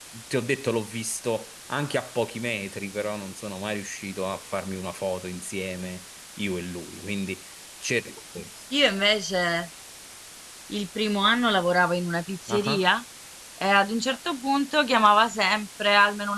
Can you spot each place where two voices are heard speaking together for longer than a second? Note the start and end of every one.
none

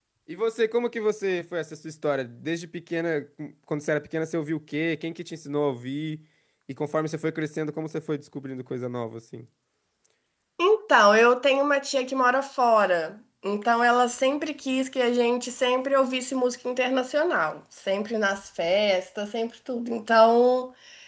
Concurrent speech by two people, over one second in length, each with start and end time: none

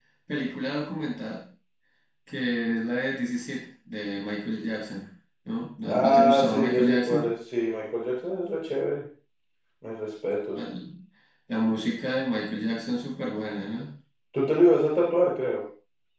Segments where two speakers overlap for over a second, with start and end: 5.9-7.2

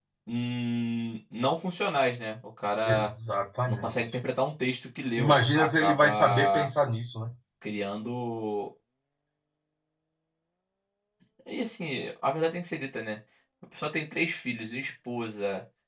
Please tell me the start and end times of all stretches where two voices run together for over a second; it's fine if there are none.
5.2-6.7

